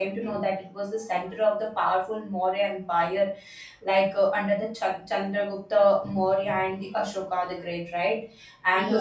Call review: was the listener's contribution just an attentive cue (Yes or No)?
Yes